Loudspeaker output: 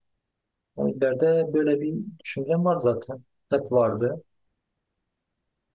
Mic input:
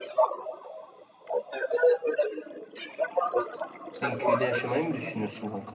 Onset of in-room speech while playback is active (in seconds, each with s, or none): 3.9 s